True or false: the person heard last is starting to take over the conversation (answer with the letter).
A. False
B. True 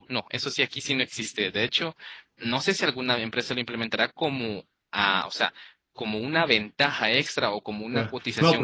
B